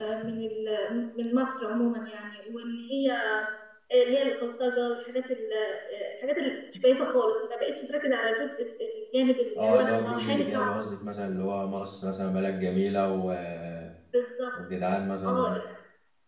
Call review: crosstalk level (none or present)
present